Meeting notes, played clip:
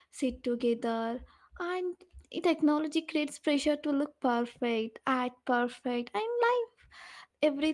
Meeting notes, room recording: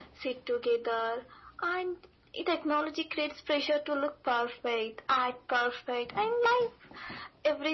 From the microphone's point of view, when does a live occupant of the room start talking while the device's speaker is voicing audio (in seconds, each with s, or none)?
none